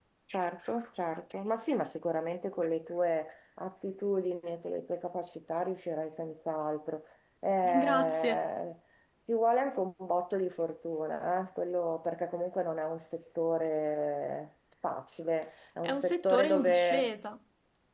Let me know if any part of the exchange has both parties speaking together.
Yes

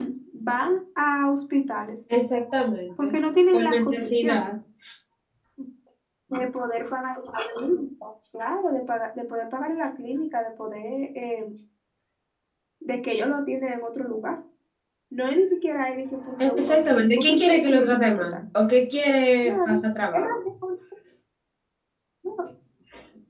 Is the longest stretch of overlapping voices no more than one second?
No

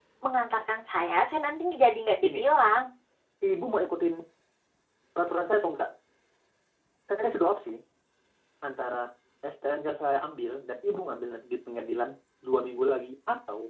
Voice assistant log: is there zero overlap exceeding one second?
Yes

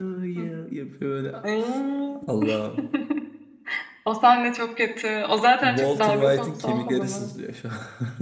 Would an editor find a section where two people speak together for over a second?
Yes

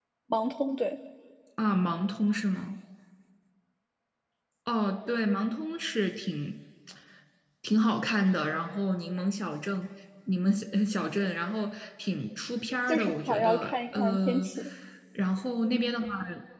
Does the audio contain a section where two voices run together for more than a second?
Yes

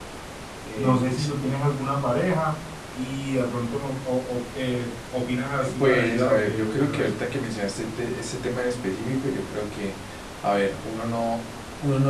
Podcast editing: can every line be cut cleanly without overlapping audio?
No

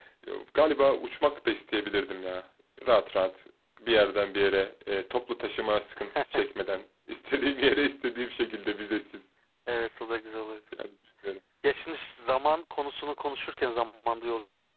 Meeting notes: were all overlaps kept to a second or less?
Yes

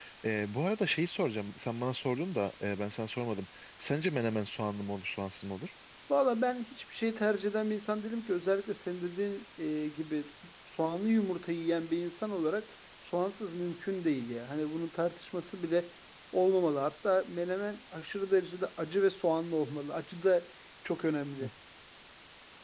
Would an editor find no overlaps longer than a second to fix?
Yes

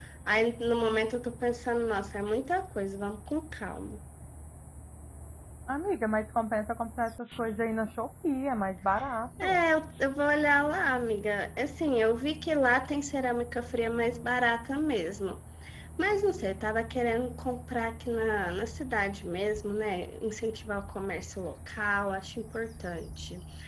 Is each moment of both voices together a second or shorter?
Yes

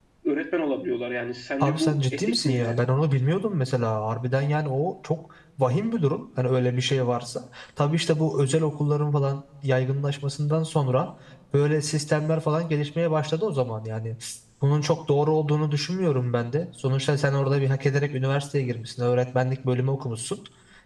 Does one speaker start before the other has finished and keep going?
Yes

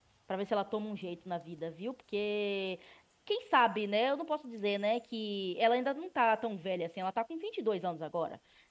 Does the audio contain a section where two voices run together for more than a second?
No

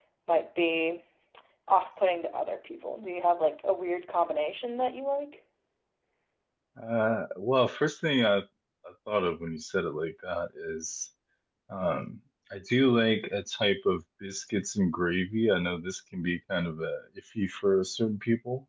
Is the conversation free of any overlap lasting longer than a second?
Yes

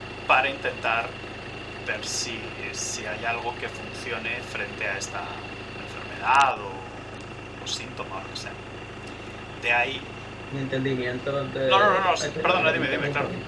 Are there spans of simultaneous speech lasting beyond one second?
Yes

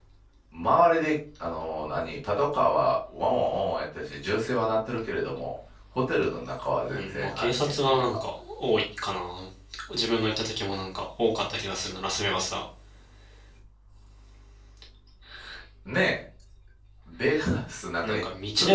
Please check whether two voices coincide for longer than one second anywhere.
Yes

